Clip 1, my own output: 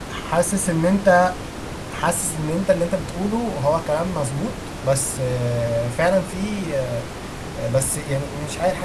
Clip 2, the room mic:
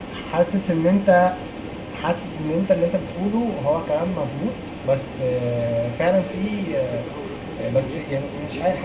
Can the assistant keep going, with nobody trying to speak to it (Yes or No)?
No